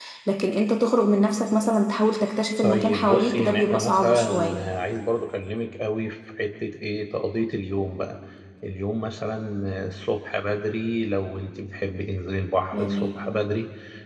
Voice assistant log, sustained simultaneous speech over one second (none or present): present